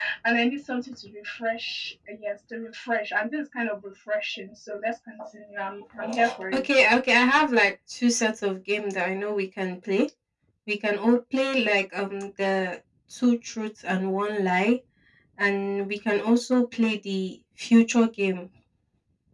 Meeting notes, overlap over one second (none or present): none